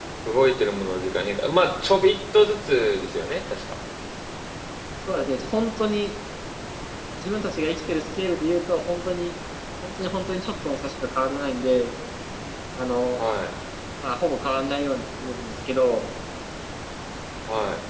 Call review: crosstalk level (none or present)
none